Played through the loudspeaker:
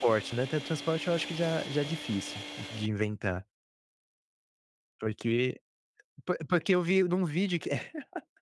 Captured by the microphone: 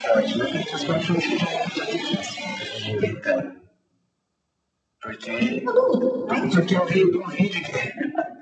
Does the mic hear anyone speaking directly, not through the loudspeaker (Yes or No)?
Yes